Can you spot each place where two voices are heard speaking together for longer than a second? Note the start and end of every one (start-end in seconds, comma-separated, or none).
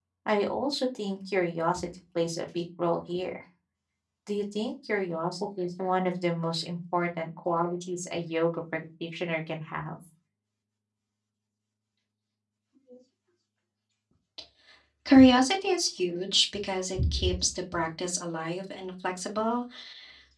none